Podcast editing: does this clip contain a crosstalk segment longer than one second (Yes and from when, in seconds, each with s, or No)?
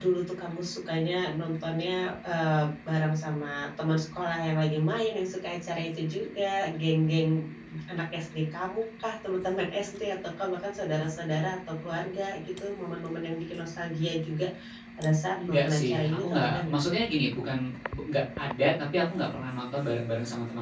Yes, from 15.3 s